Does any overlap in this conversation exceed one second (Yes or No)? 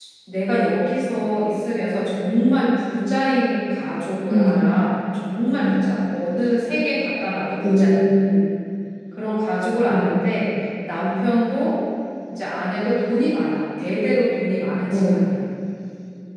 No